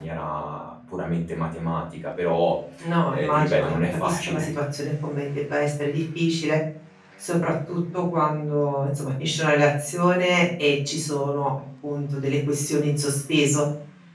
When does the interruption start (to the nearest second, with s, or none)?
3 s